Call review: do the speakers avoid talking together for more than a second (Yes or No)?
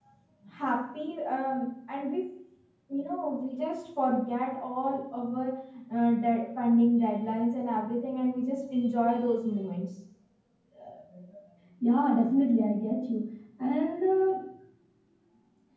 Yes